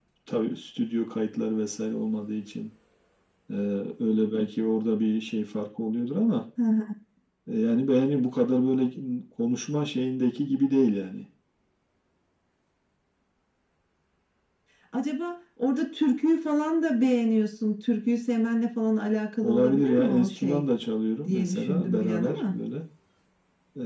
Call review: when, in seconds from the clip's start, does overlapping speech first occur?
19.4 s

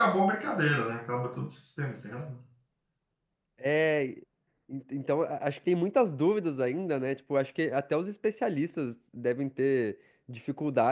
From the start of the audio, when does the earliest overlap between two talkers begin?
none

